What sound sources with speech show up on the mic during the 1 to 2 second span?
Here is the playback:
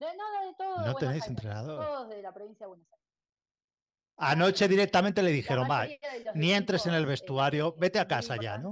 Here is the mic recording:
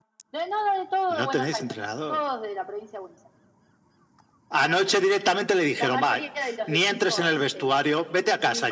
echo only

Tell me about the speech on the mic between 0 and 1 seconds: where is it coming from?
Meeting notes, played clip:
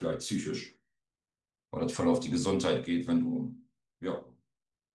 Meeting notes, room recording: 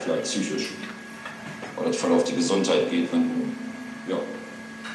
echo only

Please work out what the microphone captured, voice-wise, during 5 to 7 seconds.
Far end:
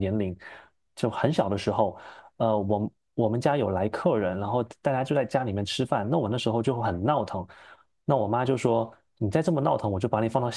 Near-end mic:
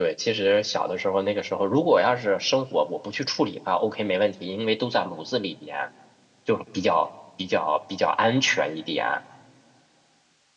user only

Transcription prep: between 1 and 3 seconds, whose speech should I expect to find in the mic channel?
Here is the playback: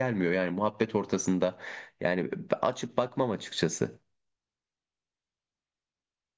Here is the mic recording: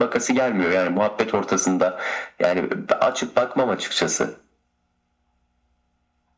echo only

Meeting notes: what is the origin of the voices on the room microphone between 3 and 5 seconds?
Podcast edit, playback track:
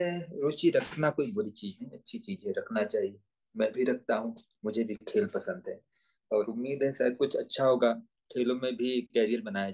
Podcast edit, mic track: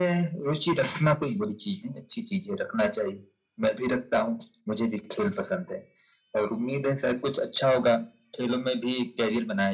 echo only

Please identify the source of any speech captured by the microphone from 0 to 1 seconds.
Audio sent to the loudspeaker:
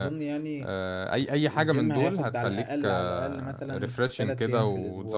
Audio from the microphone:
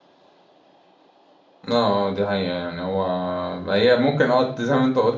neither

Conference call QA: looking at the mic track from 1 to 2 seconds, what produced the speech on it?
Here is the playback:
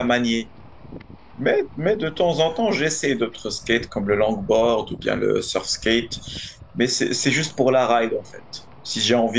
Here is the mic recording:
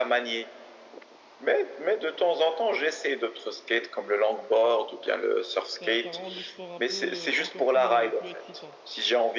echo only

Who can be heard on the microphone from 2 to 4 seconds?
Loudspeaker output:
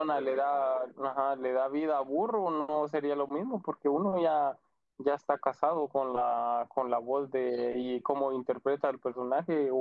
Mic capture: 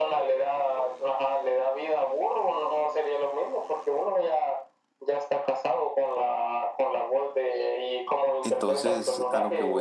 echo only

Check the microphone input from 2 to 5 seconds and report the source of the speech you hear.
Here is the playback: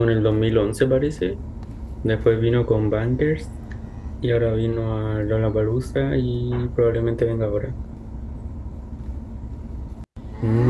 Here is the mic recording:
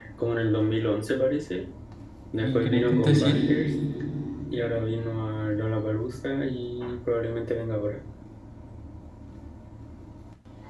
both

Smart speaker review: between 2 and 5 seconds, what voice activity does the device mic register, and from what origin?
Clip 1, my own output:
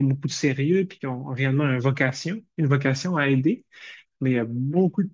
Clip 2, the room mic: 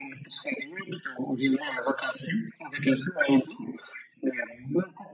echo only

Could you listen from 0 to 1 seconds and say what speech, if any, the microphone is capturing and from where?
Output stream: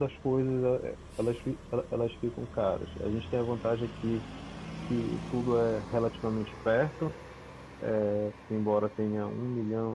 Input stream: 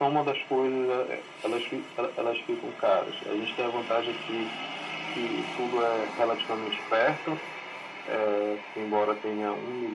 echo only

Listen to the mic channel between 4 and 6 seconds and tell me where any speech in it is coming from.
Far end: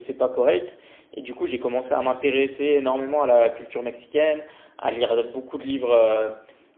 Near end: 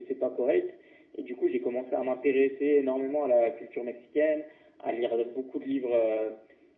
echo only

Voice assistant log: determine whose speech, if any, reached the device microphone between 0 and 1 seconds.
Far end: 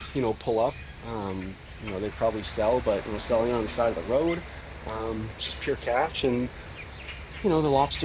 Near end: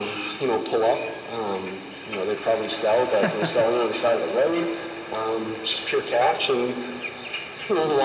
echo only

